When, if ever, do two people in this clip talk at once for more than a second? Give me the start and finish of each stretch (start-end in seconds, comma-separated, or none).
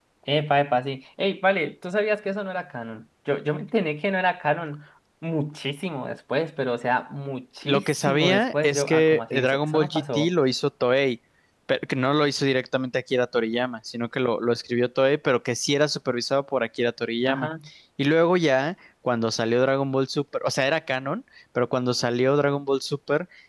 7.6-10.3